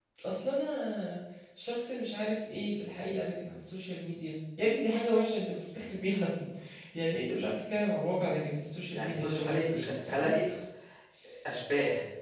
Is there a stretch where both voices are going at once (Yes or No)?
Yes